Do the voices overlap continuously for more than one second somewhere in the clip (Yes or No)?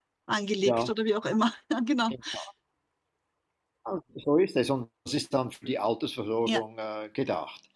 No